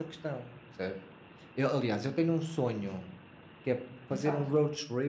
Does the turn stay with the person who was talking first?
Yes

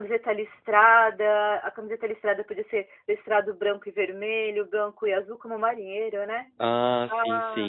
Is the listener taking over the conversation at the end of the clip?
Yes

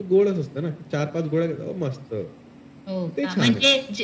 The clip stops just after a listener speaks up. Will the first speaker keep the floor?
No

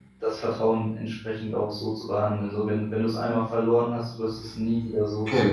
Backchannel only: No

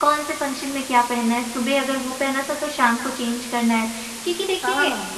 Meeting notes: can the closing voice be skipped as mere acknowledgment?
Yes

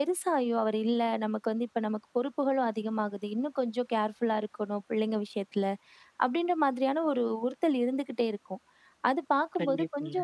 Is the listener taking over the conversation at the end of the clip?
No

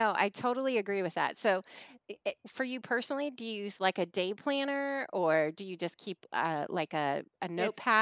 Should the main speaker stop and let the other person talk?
Yes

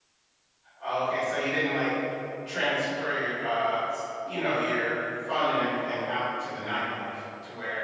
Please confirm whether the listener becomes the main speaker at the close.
Yes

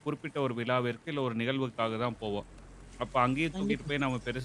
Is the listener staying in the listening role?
Yes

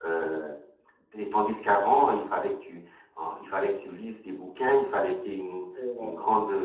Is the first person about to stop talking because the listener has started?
No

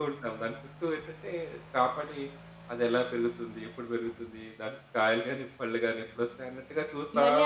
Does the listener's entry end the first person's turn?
Yes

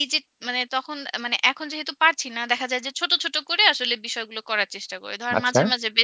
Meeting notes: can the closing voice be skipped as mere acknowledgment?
Yes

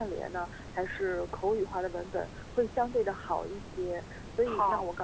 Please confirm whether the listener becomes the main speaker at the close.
No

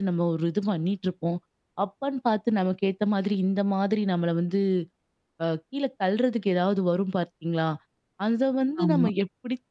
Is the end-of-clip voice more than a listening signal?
No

